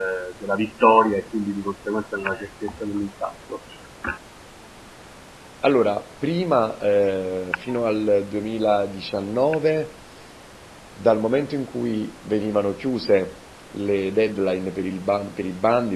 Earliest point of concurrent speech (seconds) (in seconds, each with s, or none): none